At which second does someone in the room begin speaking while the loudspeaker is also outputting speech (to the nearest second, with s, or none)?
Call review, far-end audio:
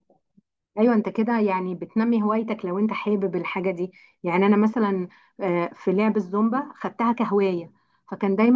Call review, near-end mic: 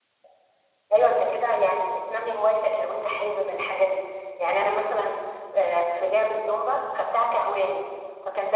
none